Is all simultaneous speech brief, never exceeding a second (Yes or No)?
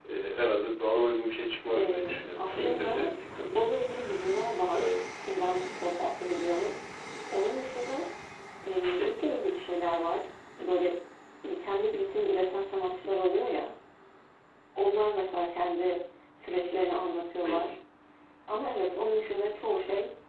No